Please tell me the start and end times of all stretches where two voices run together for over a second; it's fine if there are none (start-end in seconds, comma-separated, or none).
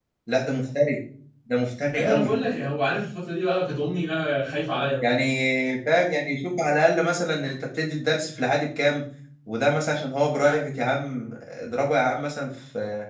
none